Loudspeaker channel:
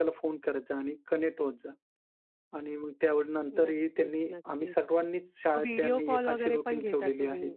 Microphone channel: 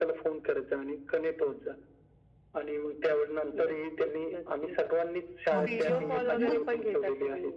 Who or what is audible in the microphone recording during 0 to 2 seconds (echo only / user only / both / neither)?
echo only